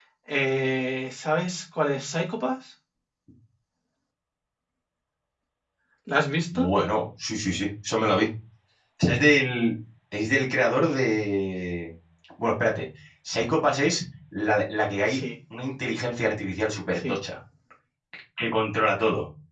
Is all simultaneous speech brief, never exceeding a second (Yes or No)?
Yes